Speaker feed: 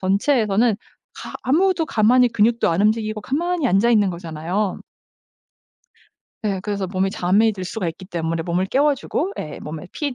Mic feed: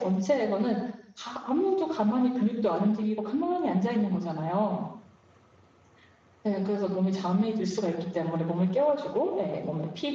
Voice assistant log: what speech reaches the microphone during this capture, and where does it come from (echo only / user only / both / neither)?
echo only